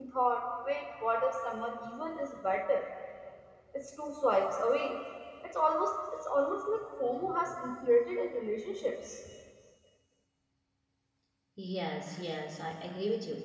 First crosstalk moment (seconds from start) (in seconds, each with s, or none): none